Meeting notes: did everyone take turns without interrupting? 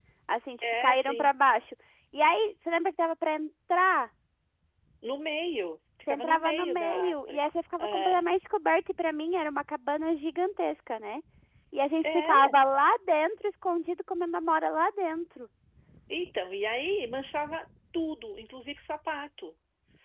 No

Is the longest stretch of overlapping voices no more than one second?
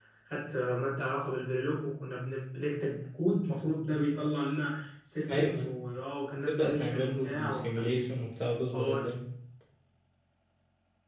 No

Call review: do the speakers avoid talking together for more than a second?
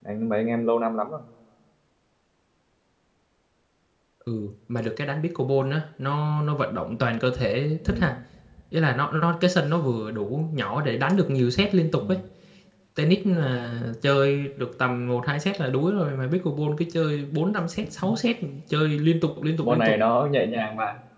Yes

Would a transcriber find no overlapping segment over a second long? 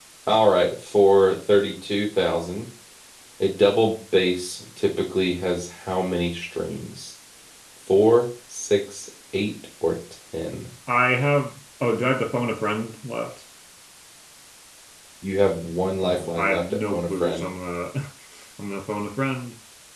No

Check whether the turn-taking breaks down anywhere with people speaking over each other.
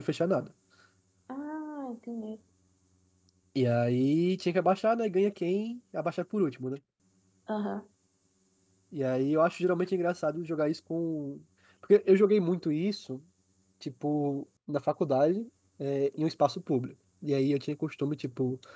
No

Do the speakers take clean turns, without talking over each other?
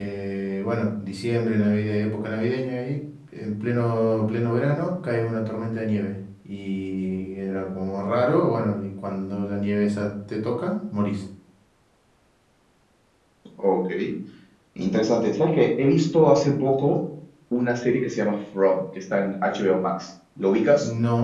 Yes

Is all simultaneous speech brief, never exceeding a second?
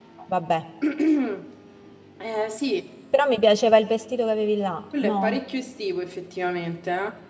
Yes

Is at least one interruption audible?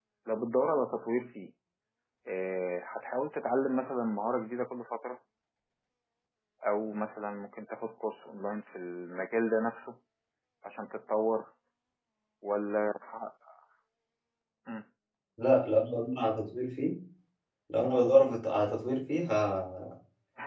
No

